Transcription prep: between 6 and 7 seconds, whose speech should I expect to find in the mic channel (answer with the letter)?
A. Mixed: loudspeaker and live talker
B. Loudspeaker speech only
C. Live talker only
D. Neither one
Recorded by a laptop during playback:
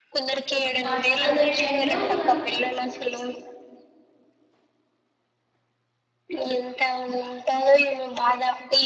B